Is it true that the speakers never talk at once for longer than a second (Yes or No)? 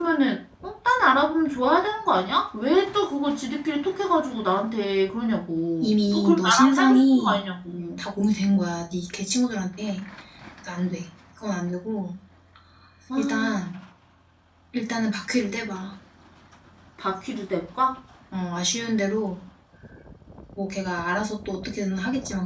No